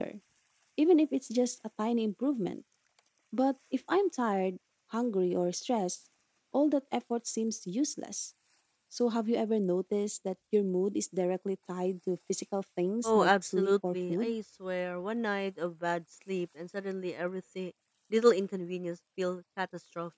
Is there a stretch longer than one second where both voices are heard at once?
Yes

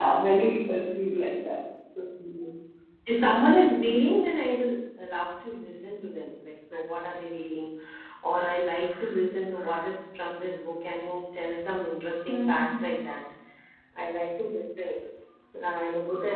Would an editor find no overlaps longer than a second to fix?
Yes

